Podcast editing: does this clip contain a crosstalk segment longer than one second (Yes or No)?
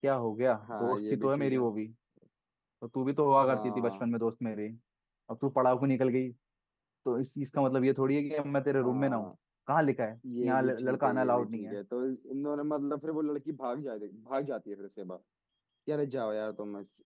Yes